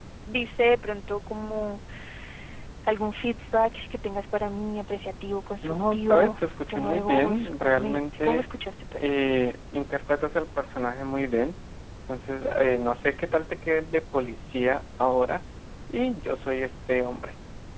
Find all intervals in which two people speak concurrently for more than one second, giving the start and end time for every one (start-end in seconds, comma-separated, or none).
5.6-8.4